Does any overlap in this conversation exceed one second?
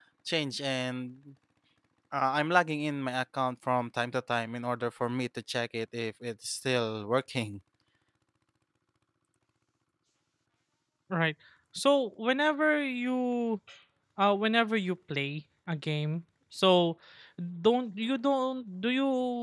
No

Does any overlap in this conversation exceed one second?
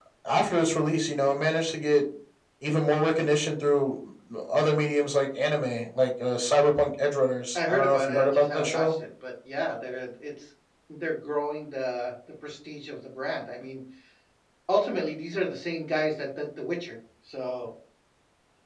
Yes, from 7.6 s

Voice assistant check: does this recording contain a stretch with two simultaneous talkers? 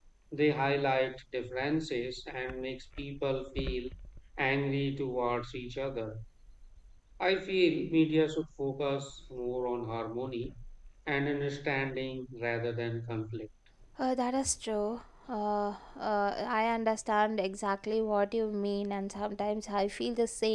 No

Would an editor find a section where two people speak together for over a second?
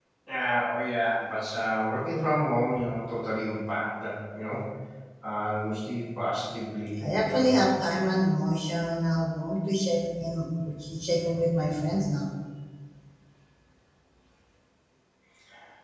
No

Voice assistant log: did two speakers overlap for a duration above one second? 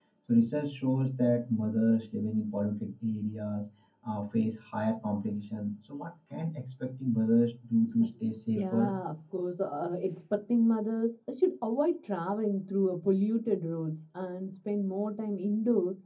No

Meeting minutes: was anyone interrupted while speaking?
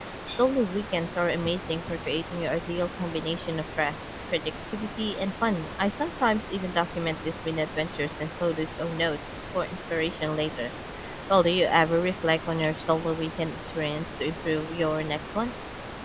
No

